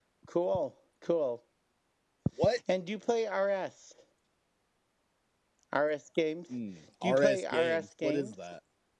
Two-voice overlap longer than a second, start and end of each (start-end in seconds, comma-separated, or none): 7.0-8.3